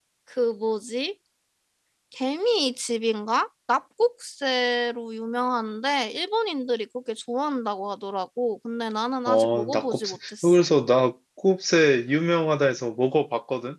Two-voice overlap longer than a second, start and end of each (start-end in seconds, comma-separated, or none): 9.3-10.6